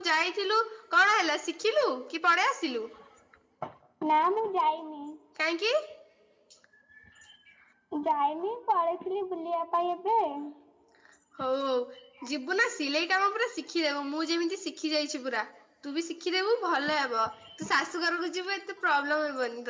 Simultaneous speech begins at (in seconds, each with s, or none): none